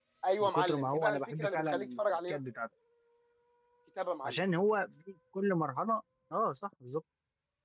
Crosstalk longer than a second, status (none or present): present